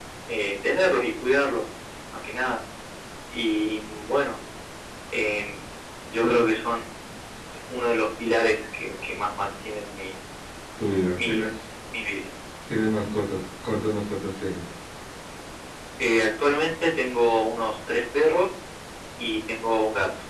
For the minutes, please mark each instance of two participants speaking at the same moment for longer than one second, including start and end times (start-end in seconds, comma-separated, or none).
none